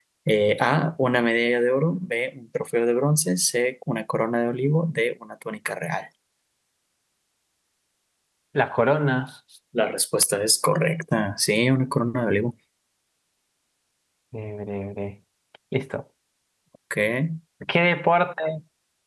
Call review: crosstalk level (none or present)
none